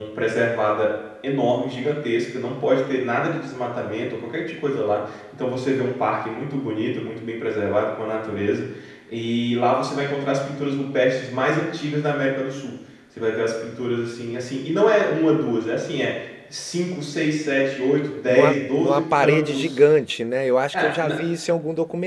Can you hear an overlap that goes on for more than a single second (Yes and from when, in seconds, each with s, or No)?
Yes, from 18.3 s